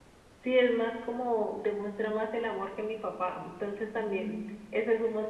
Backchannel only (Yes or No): Yes